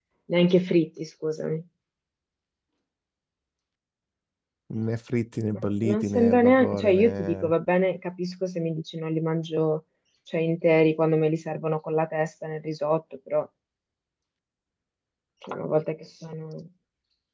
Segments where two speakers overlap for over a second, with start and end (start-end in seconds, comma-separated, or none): 5.5-7.5